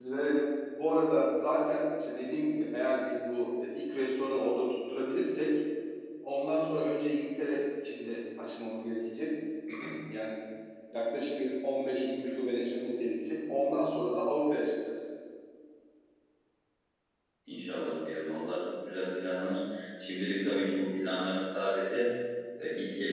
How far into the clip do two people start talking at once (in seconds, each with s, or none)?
none